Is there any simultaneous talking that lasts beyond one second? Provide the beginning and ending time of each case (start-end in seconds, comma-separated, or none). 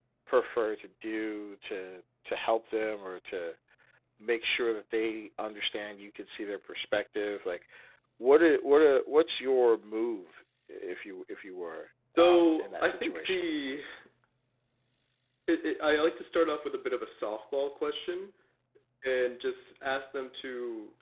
12.2-13.4